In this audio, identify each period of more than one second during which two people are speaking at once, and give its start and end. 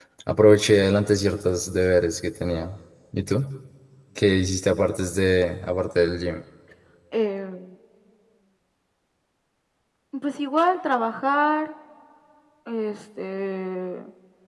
none

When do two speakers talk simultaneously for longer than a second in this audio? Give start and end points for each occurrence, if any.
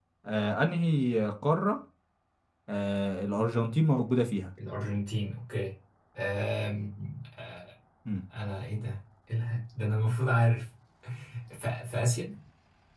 none

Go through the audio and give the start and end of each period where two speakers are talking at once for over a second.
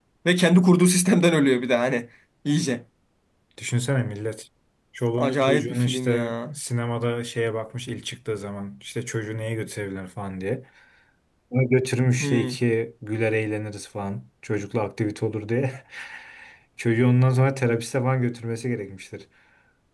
5.2-6.6

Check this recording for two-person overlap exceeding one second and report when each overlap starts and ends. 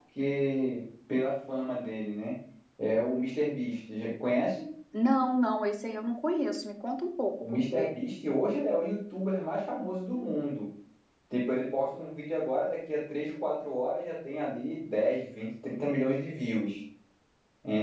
none

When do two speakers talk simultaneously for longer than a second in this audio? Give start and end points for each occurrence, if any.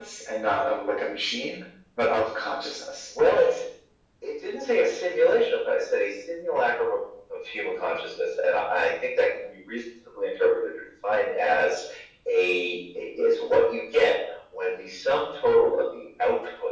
none

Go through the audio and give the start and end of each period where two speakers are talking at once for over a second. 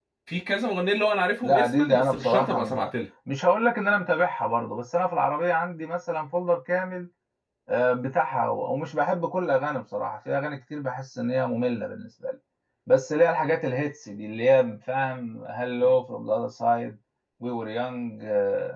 1.4-2.9

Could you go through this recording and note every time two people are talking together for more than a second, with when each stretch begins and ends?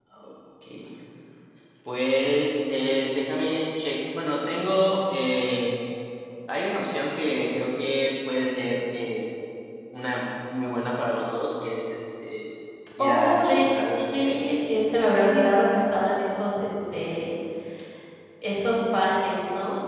13.0-14.4

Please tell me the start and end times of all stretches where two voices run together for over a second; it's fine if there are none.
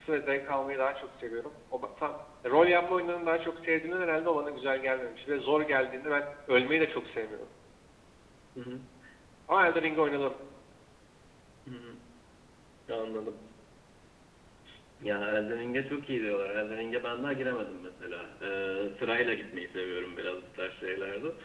none

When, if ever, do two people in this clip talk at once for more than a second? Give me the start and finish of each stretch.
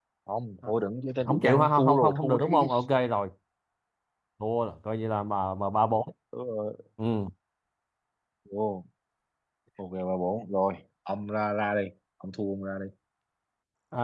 1.2-2.7

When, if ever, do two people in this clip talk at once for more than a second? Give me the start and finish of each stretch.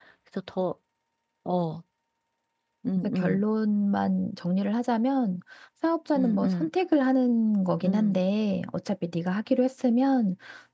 none

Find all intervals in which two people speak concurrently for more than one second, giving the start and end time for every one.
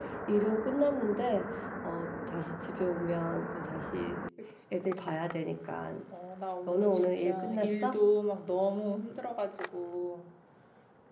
6.7-8.0

